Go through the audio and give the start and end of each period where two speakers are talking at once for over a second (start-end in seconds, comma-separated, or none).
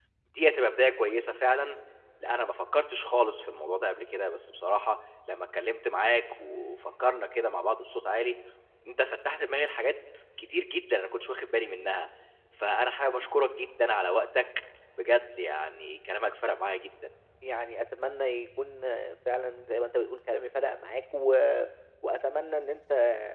none